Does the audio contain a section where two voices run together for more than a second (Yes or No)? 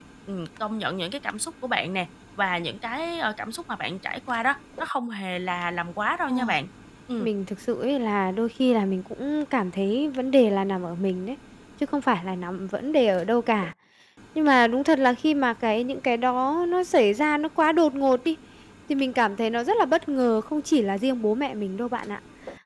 No